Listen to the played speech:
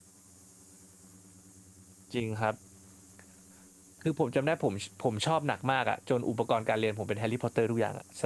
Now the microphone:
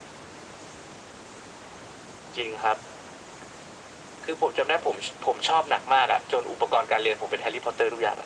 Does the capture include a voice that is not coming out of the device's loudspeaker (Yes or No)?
No